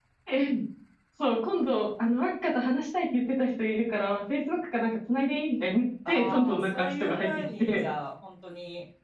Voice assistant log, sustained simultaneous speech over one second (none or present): present